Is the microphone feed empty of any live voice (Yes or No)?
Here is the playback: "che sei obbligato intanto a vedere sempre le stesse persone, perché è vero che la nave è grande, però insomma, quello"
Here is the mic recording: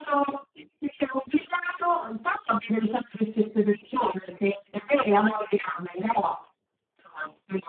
Yes